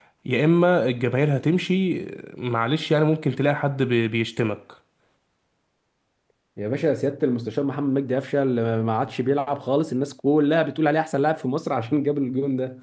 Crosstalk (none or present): none